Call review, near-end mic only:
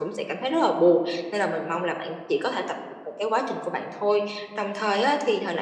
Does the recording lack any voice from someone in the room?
Yes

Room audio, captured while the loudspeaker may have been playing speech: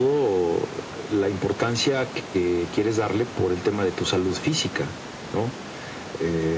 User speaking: No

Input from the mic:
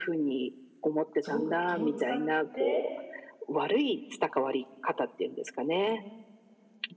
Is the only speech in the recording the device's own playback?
No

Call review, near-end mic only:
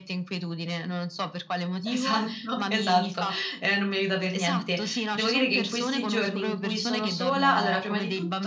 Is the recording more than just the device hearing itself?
Yes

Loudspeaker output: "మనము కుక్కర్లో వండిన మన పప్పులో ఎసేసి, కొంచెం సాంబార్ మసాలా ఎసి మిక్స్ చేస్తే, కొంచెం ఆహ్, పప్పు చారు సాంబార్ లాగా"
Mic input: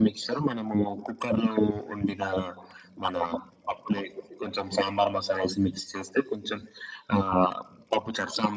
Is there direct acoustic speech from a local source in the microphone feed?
No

